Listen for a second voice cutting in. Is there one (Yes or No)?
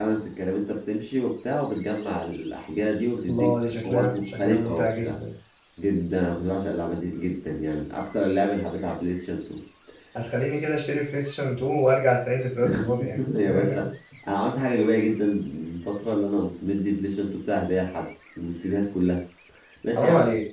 Yes